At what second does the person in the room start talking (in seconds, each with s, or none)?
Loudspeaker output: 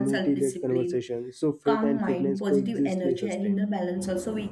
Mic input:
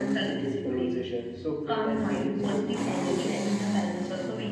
none